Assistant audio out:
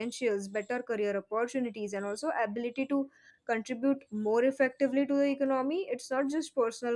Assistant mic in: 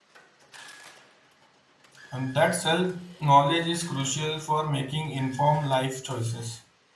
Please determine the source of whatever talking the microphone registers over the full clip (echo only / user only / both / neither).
user only